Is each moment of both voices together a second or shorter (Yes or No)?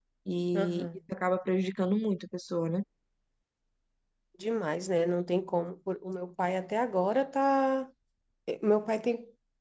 Yes